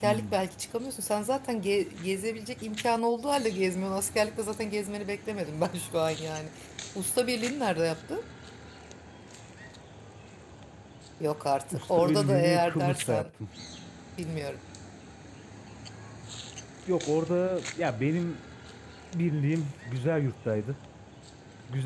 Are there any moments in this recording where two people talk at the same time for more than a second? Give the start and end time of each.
11.7-13.3

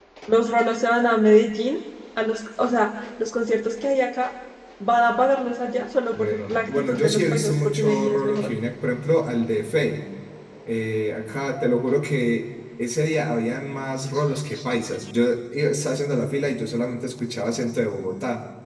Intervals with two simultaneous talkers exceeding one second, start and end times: 6.2-8.5

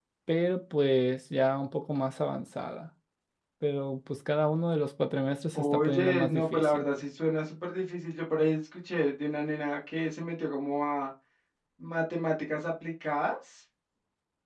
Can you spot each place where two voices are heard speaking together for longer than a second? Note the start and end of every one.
5.5-6.8

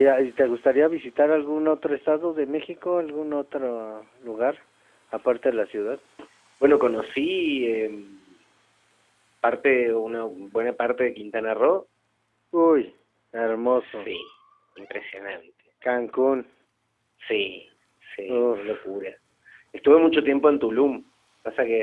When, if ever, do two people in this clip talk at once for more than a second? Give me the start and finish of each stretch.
none

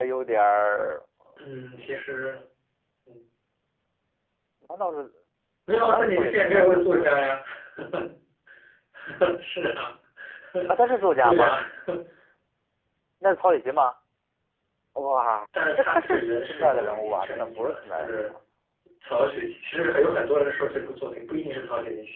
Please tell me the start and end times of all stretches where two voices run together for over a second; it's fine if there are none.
5.7-7.3, 15.8-18.3

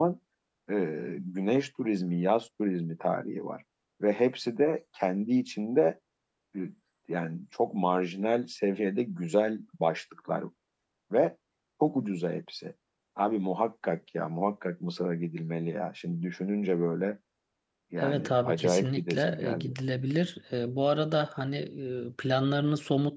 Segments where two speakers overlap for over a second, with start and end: 18.0-19.7

